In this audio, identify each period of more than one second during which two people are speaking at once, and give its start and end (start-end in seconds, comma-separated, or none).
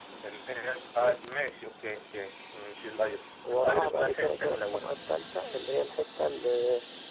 3.5-4.9